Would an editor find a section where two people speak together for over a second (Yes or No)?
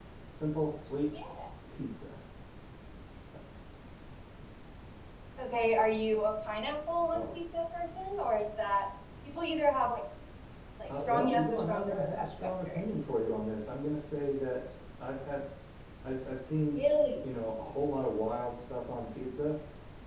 Yes